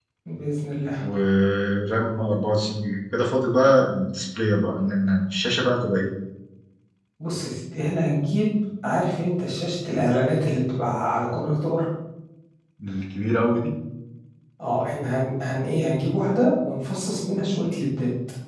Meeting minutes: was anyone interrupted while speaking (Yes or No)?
No